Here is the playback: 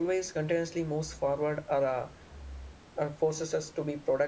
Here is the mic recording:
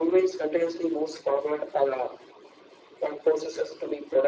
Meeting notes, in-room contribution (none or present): none